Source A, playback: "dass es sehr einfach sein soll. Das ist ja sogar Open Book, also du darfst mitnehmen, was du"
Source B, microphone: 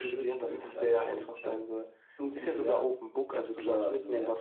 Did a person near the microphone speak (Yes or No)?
Yes